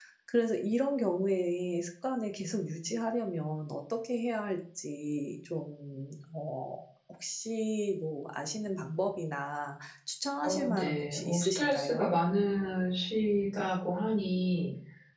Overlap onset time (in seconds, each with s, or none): 10.4 s